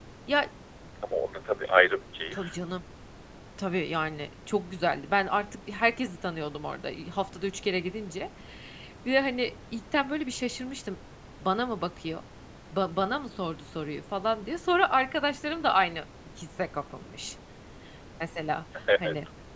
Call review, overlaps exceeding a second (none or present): none